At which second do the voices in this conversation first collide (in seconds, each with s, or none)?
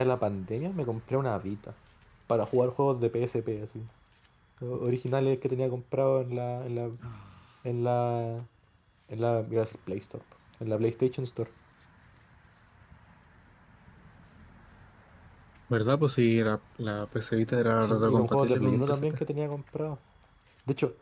17.8 s